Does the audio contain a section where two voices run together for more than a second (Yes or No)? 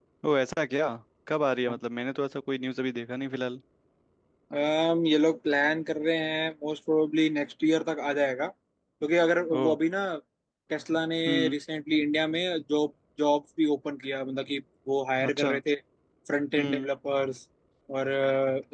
No